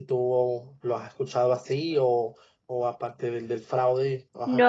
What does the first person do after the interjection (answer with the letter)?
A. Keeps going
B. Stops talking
B